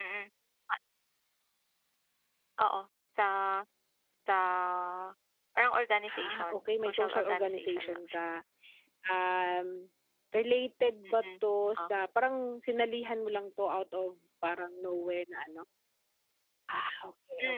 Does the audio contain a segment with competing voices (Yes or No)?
Yes